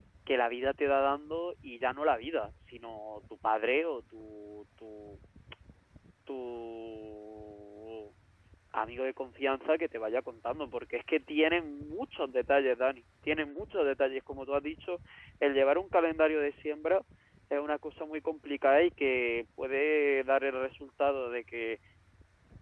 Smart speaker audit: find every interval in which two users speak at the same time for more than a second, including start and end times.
none

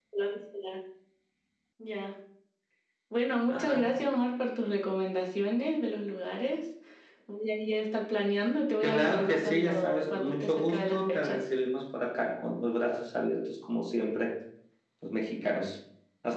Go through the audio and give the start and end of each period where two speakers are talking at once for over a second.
8.8-11.4

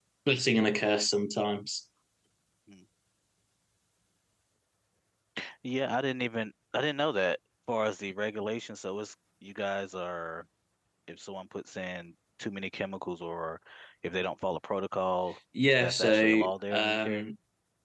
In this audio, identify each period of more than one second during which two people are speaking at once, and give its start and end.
15.8-17.2

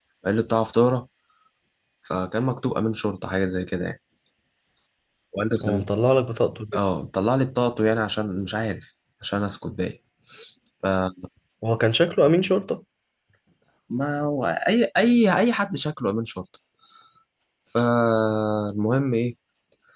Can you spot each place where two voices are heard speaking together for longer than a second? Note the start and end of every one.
none

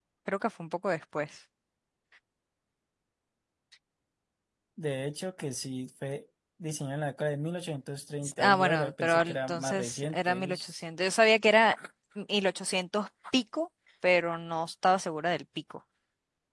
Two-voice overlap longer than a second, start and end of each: 8.4-10.6

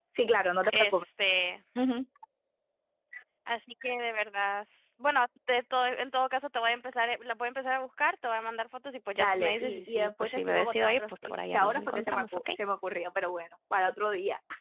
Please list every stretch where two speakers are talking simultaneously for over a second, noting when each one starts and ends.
9.2-12.5

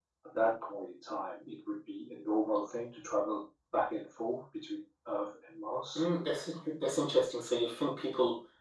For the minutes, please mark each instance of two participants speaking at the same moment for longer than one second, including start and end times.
none

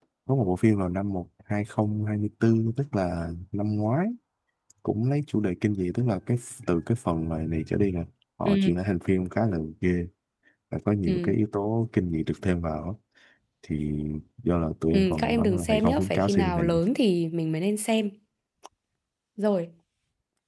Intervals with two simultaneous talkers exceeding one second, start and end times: 14.9-16.7

